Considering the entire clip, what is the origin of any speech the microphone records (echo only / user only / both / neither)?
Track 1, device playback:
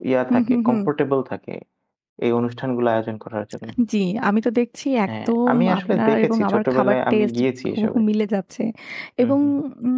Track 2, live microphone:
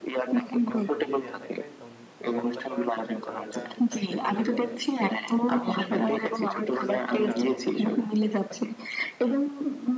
both